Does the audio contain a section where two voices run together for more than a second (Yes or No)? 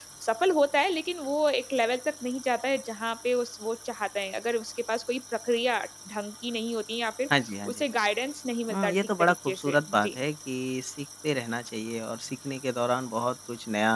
Yes